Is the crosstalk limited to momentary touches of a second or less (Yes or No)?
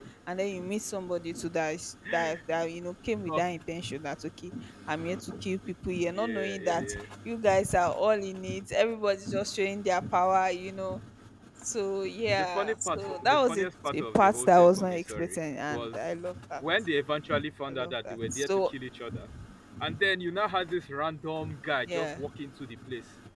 No